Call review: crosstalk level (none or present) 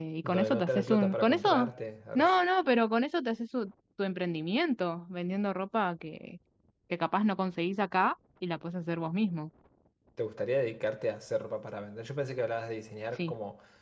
present